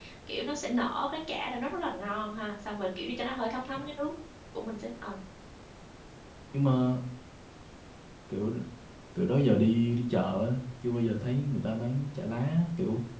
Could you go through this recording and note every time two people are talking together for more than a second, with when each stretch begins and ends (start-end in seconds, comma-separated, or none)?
none